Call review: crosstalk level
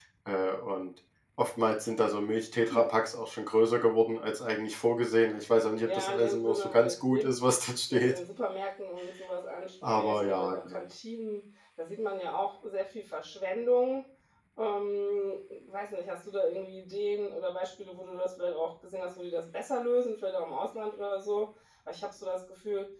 present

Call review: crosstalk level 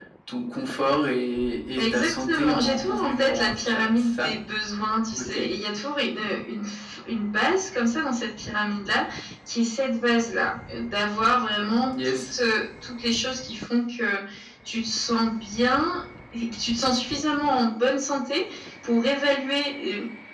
present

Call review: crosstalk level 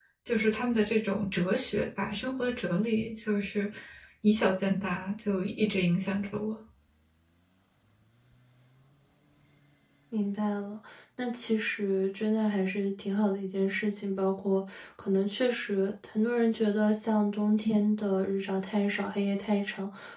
none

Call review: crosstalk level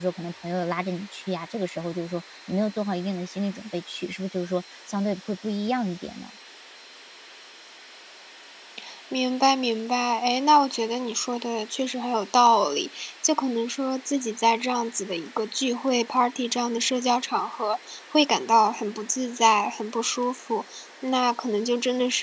none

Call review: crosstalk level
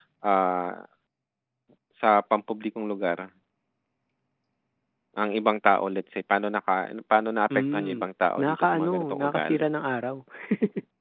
present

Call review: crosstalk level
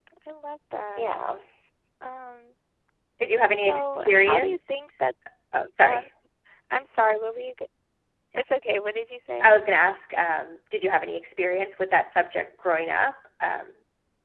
present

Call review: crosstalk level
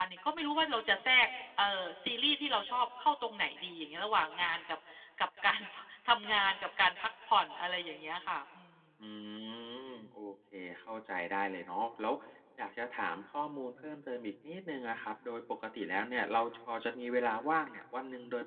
none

